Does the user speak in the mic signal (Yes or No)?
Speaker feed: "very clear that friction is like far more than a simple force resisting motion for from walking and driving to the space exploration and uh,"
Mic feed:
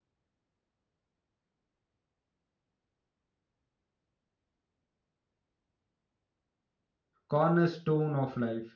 Yes